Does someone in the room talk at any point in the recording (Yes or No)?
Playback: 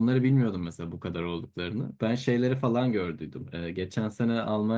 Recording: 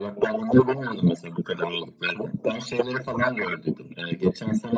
No